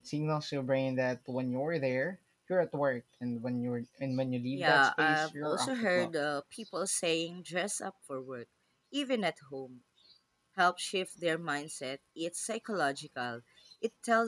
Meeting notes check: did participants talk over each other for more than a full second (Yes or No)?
Yes